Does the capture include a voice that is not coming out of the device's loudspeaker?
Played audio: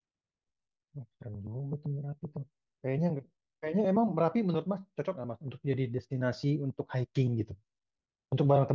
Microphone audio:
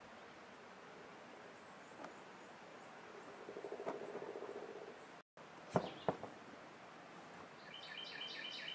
No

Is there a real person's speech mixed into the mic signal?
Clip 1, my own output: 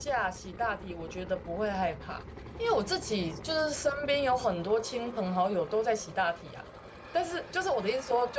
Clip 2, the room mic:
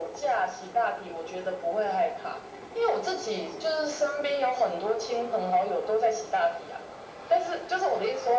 No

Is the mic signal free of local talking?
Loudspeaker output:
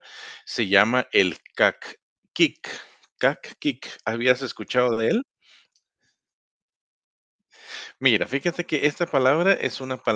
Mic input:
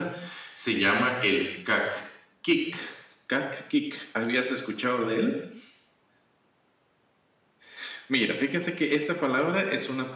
Yes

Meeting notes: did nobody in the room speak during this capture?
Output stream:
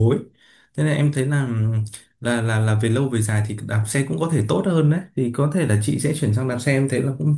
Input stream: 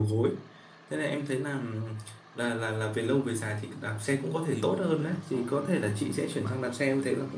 No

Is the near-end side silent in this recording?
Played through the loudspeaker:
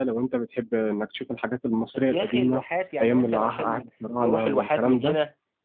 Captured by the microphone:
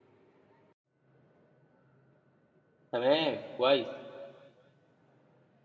No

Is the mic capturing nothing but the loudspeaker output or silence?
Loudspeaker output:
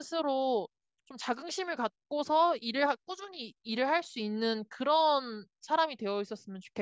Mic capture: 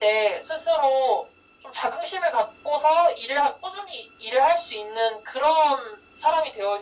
Yes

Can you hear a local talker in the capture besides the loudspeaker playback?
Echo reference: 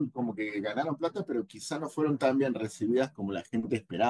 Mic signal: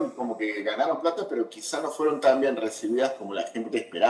No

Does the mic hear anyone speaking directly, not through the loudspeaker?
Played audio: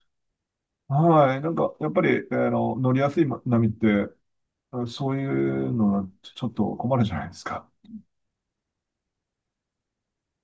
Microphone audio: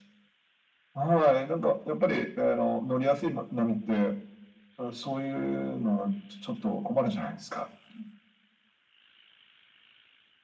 No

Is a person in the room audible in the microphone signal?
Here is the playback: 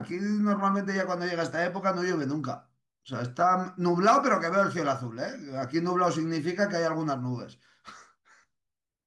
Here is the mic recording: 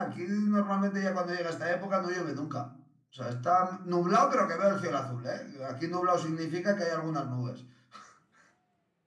No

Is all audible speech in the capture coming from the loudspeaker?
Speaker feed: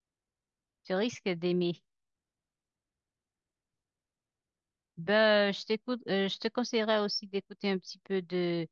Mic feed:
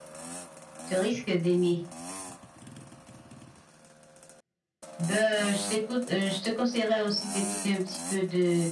Yes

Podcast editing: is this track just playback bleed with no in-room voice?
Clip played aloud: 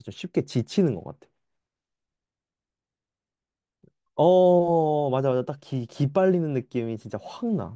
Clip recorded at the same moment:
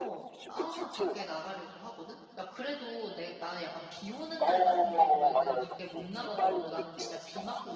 No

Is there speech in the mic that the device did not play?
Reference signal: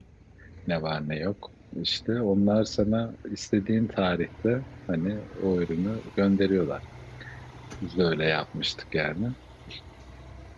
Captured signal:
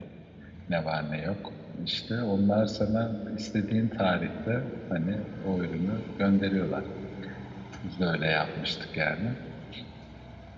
No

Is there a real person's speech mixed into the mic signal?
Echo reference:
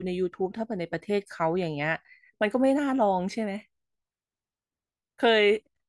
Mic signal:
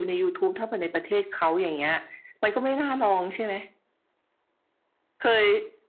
No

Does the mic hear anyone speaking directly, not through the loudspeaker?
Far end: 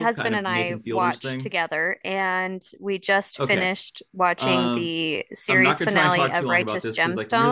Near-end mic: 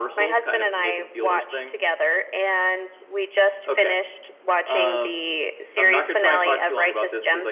No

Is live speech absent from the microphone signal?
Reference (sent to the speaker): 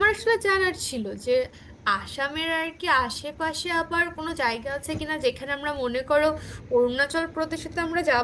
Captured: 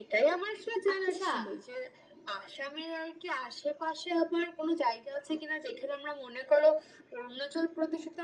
No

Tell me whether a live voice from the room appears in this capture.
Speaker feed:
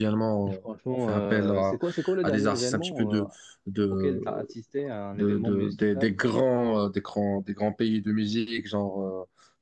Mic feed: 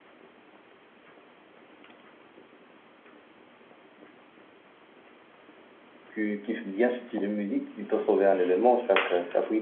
Yes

